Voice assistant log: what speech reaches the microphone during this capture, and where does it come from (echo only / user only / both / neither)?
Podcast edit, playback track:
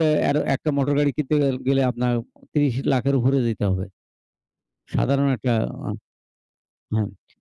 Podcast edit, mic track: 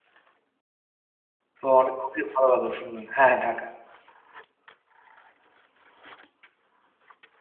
user only